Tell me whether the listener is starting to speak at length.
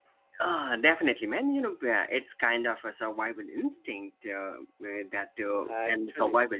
No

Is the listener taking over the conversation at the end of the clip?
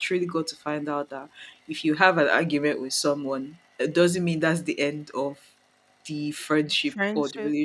No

